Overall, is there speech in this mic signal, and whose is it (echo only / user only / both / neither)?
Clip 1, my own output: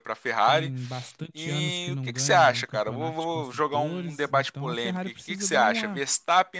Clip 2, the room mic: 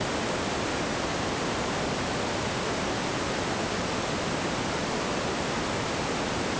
neither